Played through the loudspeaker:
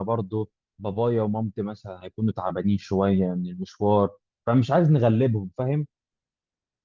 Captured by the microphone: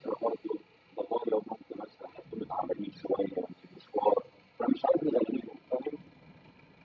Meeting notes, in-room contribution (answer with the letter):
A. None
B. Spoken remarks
A